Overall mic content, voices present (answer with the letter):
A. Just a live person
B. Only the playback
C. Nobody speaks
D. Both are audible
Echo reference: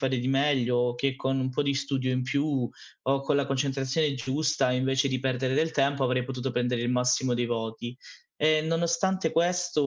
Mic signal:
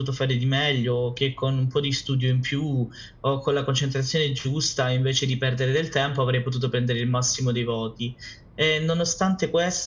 B